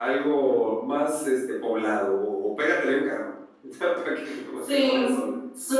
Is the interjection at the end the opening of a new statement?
Yes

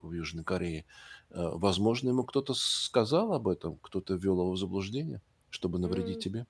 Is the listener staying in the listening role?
No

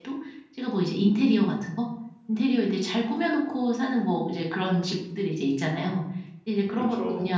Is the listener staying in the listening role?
Yes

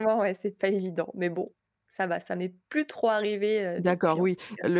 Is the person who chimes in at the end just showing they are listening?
No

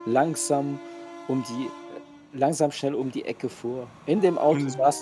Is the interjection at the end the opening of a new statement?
No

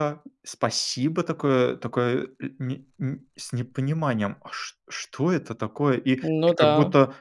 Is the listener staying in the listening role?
Yes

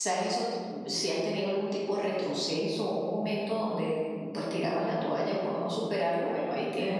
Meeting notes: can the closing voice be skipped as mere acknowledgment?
Yes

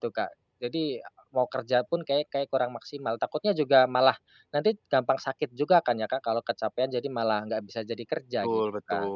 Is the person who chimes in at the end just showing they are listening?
No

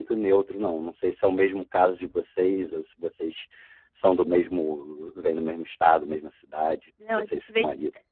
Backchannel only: No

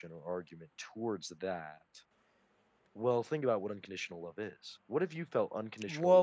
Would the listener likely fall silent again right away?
No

